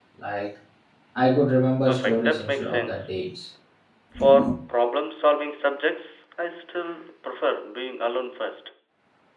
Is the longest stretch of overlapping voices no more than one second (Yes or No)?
No